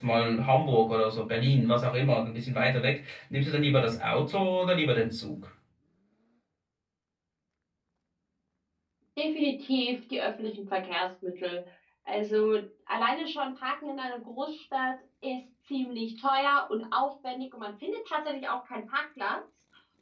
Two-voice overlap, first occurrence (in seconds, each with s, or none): none